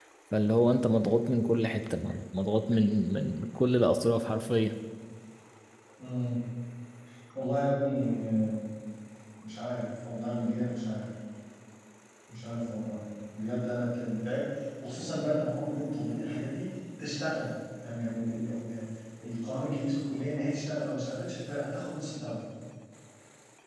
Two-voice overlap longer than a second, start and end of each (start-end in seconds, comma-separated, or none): none